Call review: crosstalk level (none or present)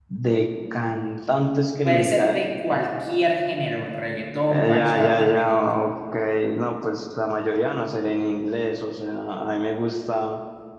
present